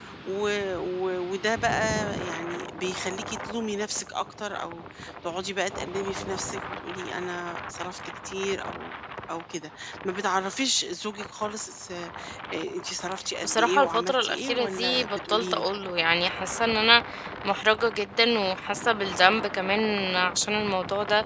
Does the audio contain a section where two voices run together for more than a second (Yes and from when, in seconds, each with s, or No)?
Yes, from 13.4 s